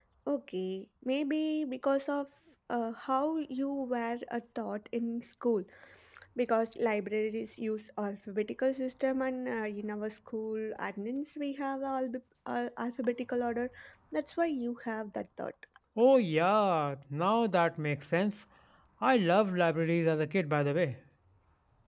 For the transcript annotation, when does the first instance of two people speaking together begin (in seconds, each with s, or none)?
none